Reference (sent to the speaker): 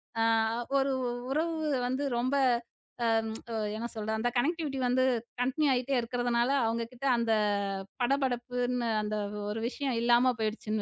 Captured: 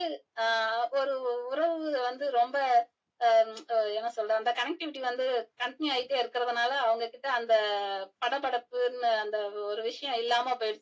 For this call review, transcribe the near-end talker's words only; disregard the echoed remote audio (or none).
none